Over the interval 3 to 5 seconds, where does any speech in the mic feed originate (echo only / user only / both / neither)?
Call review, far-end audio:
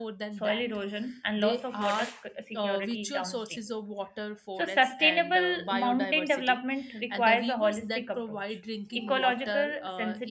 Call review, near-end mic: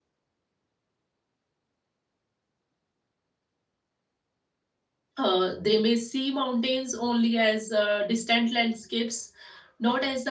neither